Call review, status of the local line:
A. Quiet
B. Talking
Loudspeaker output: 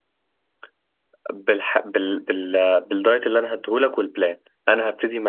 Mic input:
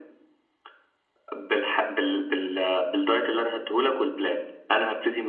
A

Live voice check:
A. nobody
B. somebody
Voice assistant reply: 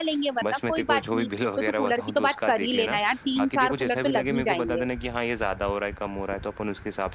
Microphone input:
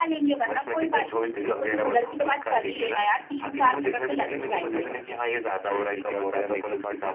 B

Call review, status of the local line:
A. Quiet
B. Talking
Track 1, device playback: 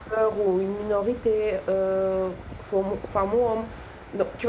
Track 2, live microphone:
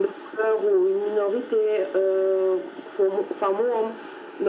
A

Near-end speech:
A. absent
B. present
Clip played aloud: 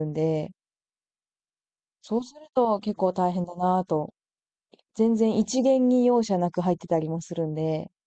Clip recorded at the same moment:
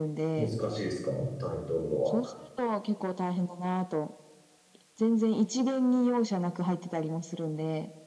B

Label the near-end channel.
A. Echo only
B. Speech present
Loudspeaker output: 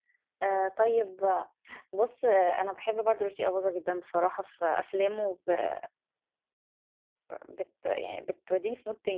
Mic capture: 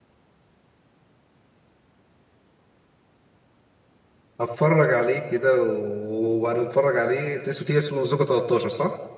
B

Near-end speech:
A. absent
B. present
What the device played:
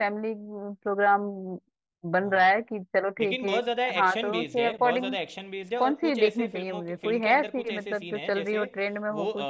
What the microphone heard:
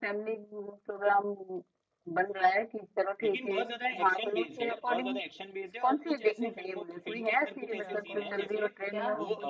B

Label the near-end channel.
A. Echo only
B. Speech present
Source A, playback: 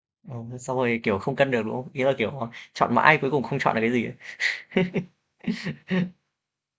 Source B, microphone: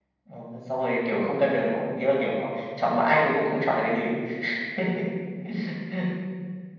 A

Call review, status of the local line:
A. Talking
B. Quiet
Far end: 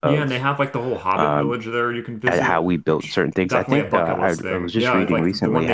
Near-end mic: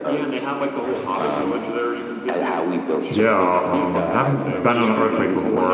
A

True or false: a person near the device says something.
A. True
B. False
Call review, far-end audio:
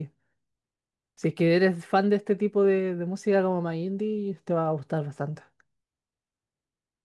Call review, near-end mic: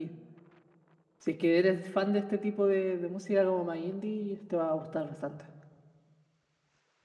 B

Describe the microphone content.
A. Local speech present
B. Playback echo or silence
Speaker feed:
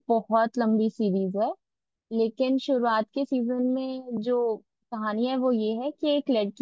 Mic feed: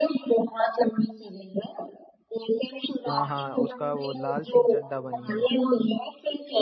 A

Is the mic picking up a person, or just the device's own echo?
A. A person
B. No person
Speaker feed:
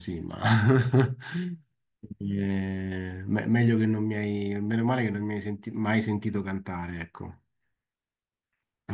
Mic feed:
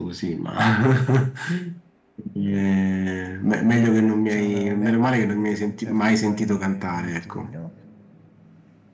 A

